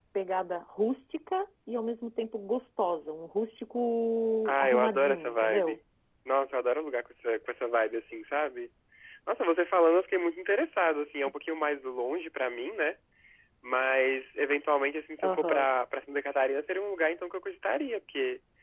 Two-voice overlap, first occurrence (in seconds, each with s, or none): 4.5 s